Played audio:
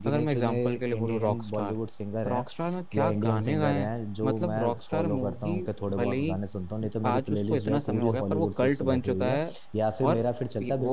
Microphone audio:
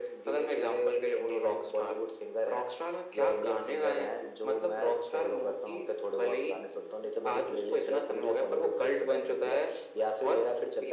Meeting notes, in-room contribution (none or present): none